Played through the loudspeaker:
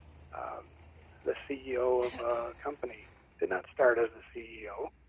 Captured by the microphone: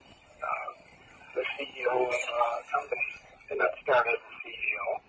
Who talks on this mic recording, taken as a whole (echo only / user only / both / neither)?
echo only